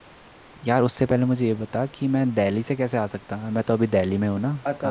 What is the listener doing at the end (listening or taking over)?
taking over